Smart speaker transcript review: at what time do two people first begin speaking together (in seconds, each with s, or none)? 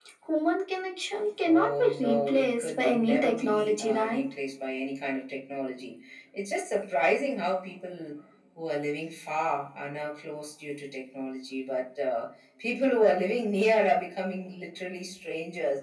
1.4 s